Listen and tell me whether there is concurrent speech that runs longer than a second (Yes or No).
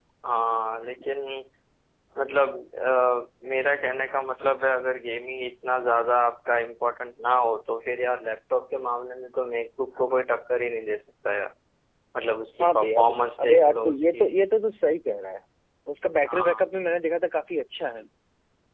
Yes